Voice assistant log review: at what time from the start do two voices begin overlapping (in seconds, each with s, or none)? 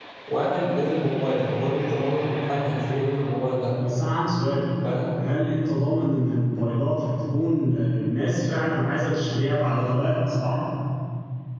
none